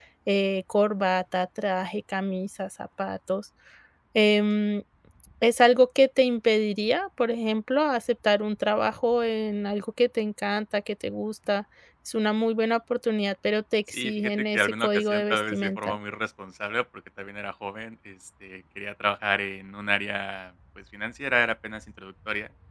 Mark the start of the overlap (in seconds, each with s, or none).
13.9 s